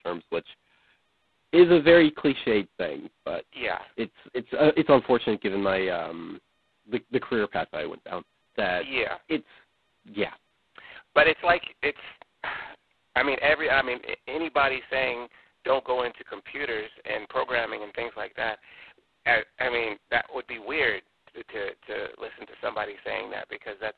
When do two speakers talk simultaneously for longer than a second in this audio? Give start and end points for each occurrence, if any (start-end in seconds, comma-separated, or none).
none